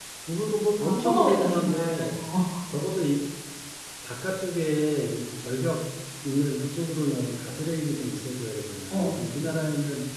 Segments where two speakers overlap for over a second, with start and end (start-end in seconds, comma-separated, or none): 0.8-2.2